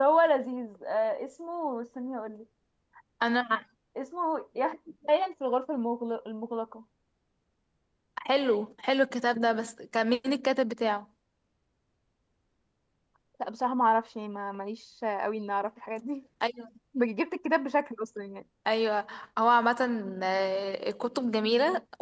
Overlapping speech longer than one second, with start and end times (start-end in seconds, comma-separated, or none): none